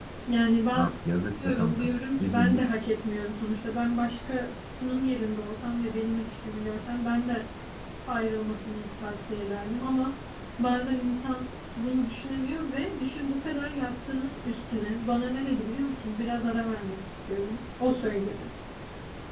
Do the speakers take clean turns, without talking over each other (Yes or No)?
No